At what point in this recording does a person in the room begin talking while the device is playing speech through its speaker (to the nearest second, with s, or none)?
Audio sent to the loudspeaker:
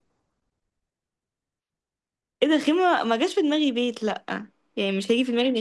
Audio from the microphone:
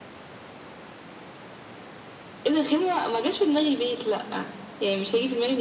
none